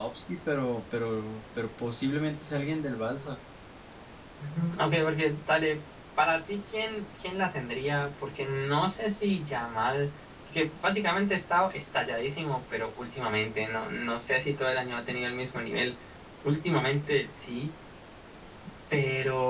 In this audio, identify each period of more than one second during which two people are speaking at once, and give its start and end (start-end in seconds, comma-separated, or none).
none